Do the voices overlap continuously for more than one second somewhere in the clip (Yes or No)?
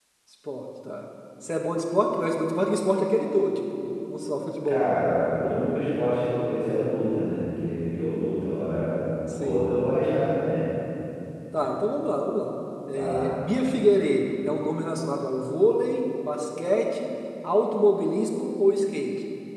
No